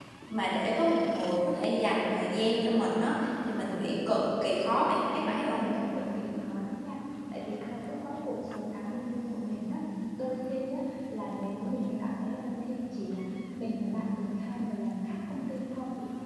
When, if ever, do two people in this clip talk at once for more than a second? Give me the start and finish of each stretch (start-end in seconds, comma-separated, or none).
none